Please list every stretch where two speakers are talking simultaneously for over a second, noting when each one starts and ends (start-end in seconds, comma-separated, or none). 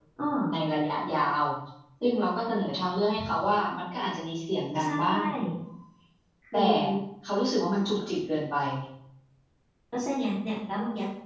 none